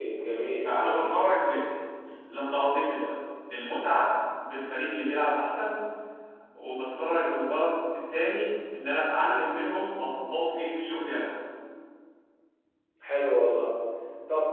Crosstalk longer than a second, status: none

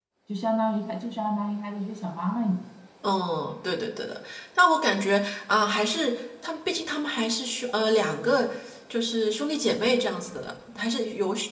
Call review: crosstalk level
none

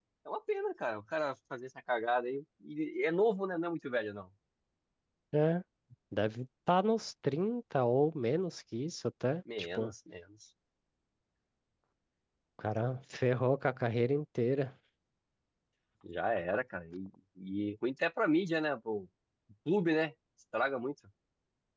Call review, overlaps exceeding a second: none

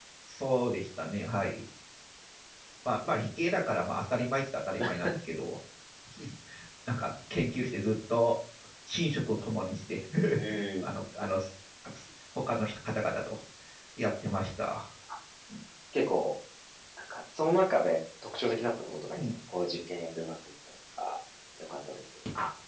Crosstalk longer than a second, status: none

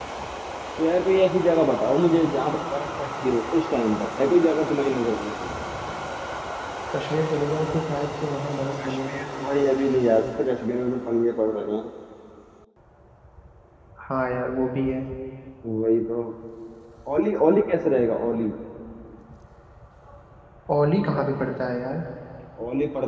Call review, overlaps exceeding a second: none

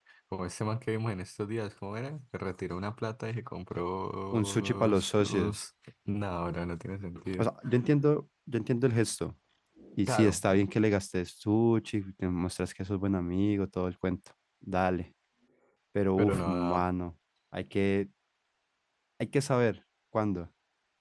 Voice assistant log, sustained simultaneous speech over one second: present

